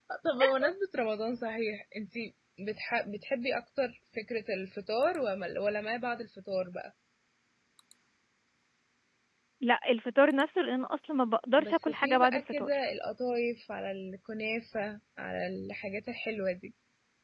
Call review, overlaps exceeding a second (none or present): present